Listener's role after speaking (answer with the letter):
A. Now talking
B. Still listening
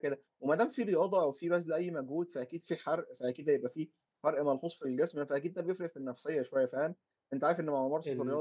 B